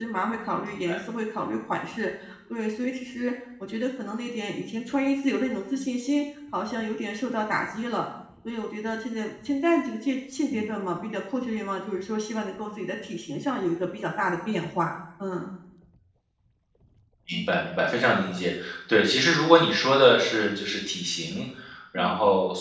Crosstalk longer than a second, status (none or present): none